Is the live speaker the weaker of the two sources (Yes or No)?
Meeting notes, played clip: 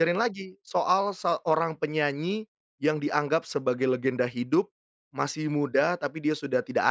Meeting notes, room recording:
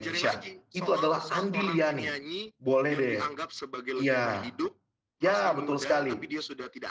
No